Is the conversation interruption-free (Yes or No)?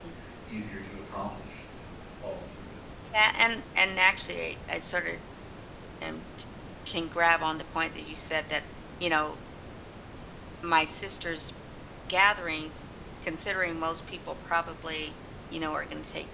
Yes